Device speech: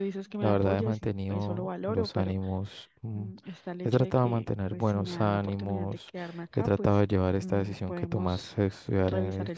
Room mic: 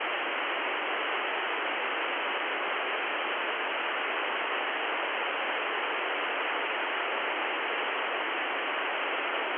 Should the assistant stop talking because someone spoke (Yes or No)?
No